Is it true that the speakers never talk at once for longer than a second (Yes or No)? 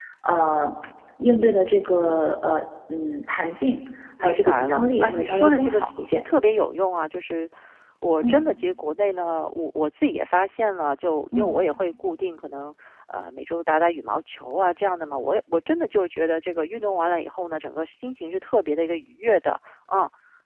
No